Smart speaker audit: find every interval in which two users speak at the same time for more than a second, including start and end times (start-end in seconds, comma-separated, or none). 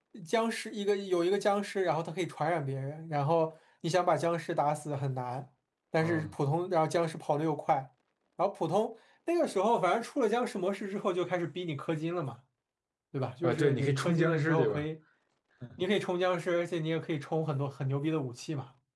13.4-14.8